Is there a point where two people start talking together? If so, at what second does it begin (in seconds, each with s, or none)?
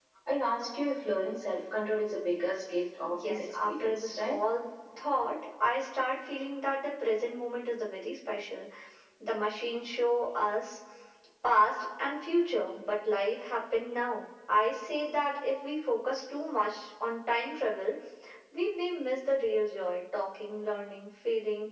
3.0 s